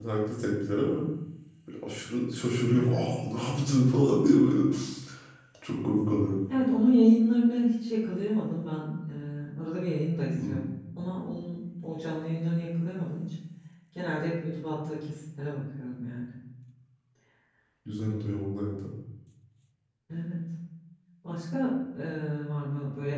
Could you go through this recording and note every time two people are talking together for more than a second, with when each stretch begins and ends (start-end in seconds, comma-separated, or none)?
none